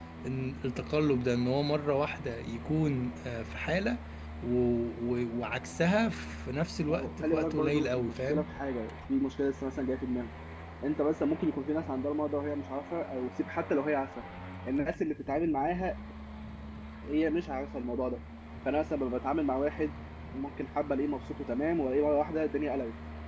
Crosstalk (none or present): present